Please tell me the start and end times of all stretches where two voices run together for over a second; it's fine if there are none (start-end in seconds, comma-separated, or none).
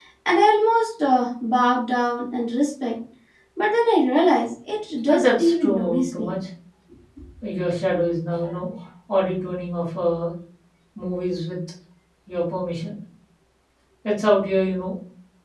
5.1-6.4